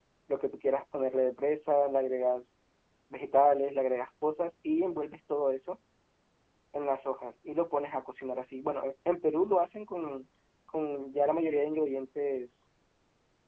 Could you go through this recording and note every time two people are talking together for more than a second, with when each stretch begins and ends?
none

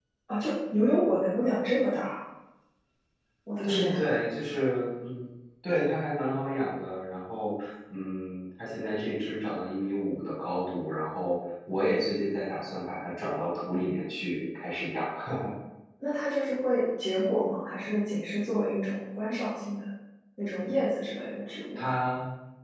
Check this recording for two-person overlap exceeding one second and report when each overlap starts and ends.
none

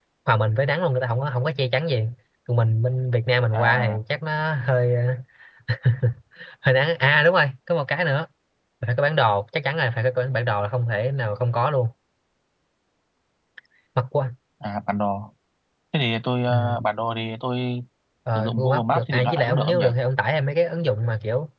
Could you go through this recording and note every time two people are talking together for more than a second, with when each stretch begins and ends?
18.4-19.9

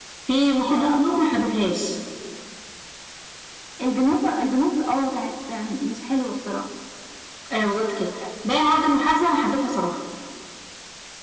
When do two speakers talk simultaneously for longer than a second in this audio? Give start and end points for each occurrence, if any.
none

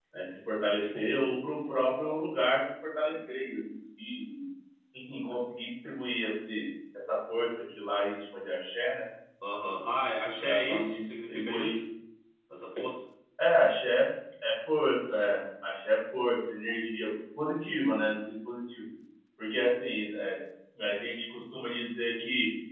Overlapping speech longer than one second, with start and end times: 10.4-11.8

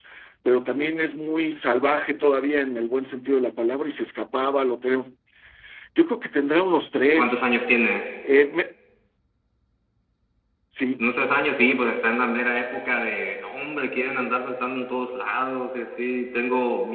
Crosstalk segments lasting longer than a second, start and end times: none

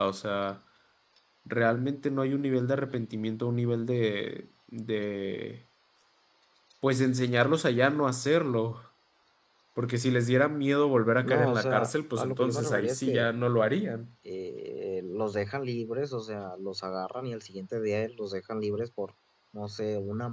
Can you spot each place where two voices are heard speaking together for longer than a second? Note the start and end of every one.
11.2-13.3

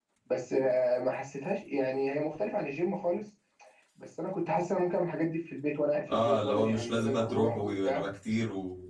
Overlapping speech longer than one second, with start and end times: 6.1-8.0

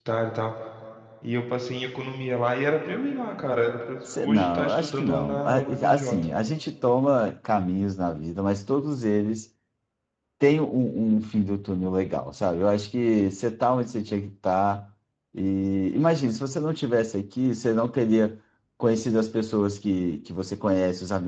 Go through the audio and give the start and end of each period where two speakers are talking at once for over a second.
4.2-6.3

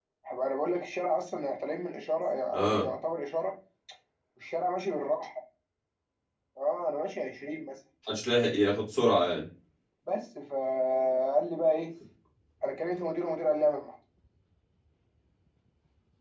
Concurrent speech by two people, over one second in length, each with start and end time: none

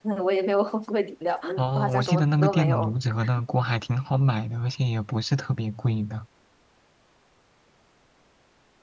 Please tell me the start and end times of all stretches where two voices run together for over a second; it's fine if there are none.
1.6-2.9

